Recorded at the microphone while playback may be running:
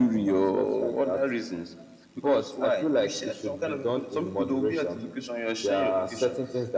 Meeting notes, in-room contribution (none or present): none